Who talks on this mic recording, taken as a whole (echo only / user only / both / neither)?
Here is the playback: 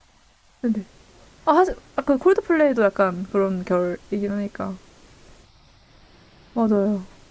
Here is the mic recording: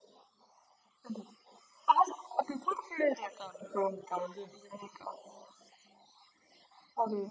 both